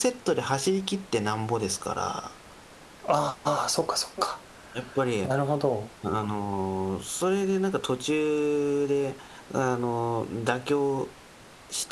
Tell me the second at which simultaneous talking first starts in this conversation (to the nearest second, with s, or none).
none